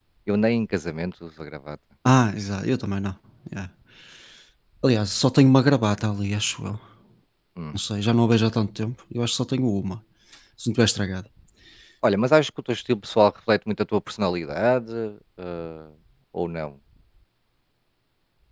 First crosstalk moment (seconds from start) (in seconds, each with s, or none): none